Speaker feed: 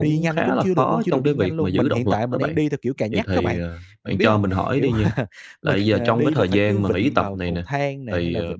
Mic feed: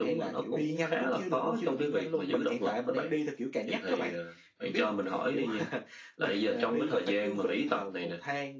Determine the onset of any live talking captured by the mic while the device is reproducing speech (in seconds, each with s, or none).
none